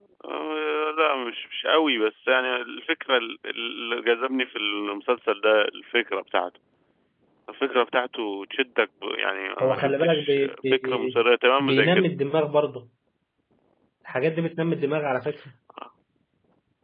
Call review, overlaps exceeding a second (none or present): present